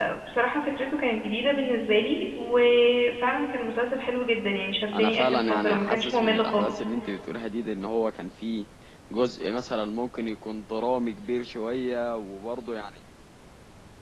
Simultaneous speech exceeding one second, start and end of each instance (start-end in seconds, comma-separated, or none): 4.9-6.7